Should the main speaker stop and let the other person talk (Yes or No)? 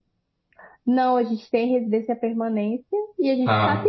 No